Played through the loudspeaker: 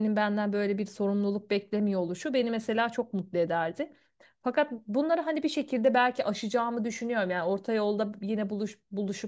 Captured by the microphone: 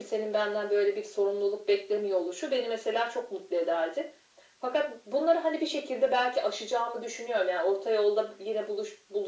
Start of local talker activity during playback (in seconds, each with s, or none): none